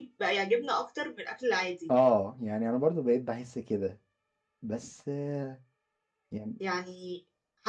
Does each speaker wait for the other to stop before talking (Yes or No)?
Yes